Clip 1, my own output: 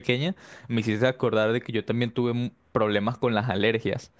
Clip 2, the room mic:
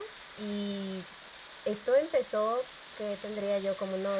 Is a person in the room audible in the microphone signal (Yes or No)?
Yes